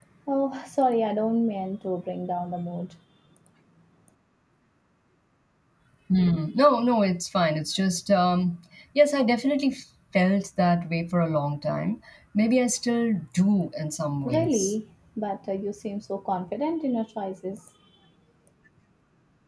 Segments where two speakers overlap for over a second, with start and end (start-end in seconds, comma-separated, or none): none